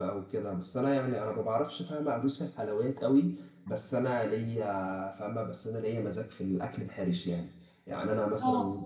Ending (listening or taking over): listening